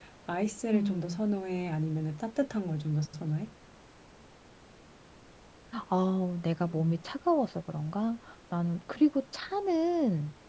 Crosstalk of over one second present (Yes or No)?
No